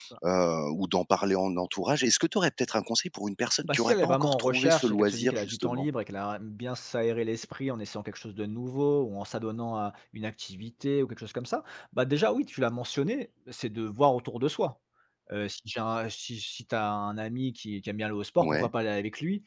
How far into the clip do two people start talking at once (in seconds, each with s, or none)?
3.7 s